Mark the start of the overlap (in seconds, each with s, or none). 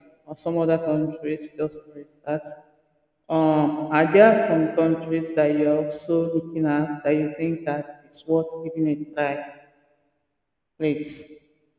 none